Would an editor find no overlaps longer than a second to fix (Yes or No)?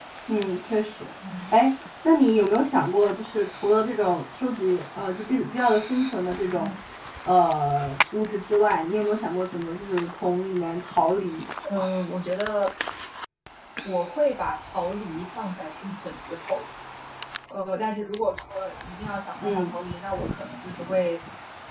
Yes